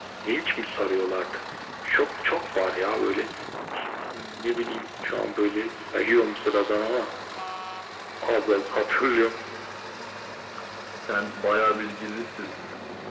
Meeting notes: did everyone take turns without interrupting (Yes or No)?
Yes